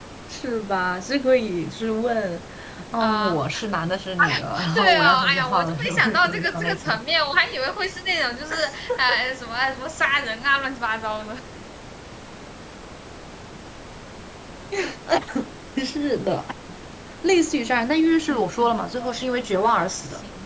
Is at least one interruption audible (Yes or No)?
Yes